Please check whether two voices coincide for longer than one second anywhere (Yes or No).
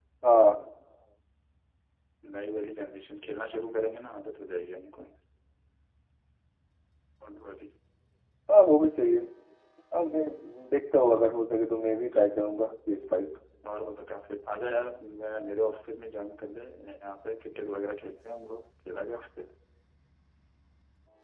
No